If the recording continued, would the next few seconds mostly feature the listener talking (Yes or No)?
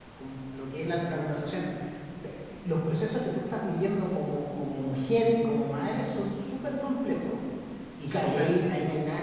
No